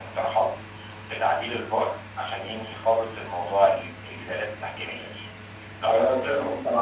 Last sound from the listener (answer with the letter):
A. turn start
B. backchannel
A